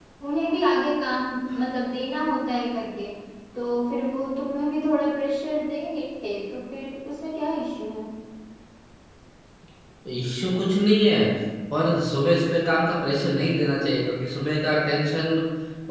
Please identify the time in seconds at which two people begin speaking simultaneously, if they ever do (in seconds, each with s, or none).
none